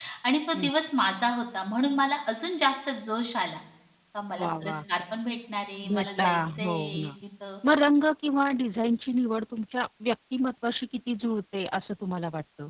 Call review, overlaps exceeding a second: present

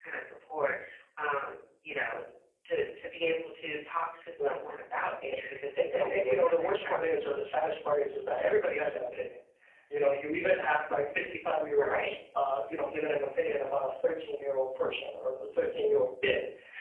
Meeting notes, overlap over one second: present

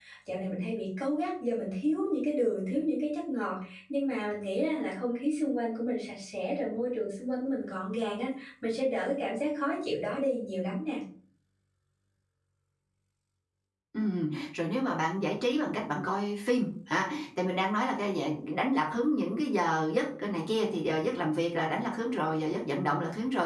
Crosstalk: none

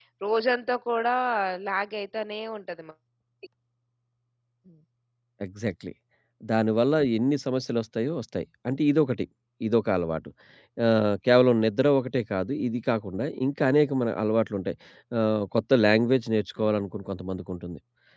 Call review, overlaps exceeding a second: none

